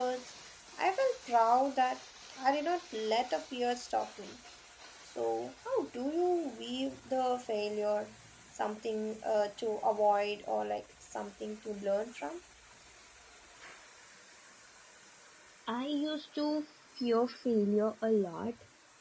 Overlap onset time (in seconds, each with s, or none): none